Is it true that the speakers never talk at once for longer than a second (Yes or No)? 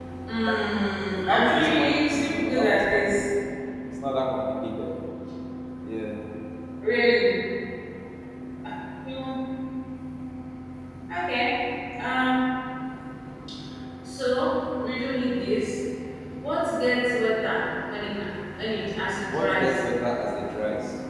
No